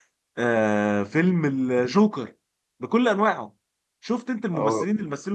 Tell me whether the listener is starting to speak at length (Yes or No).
No